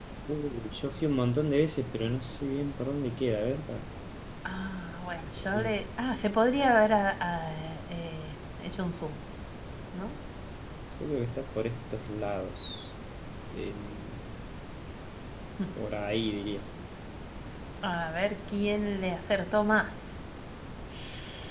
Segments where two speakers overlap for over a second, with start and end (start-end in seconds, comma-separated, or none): none